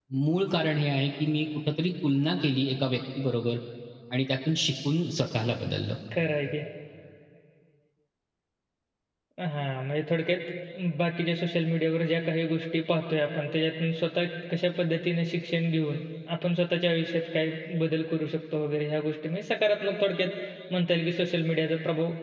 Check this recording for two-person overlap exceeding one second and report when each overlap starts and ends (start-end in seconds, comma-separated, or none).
none